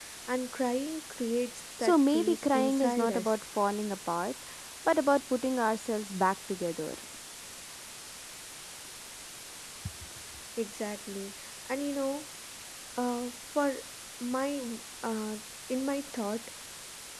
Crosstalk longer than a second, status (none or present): present